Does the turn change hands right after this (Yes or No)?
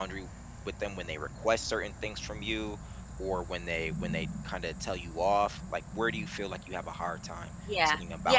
Yes